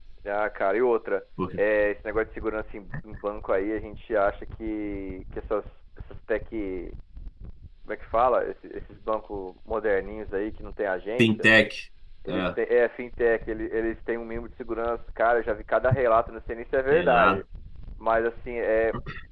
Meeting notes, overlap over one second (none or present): none